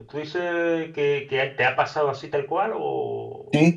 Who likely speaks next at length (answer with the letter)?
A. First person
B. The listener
B